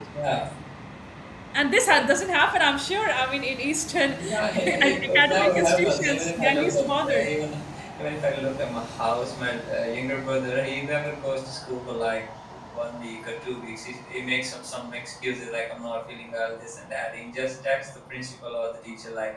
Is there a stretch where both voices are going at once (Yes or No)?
Yes